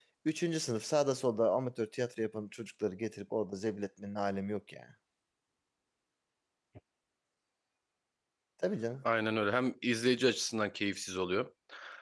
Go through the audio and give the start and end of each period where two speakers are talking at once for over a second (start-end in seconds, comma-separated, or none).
none